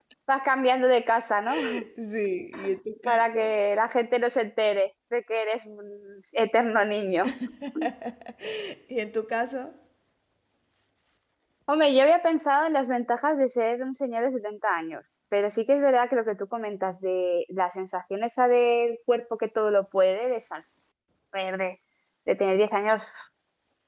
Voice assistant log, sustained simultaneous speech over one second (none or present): none